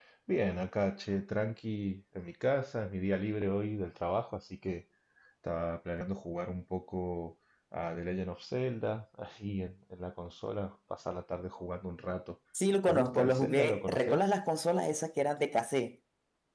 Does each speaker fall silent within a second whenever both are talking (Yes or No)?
No